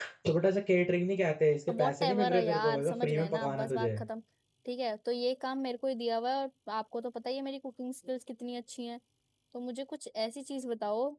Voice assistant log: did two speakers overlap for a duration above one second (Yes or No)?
Yes